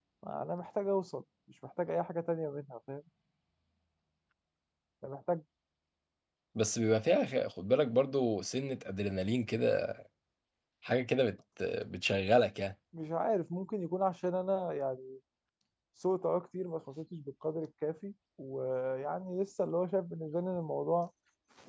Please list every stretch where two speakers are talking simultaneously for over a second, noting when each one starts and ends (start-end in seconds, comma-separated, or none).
none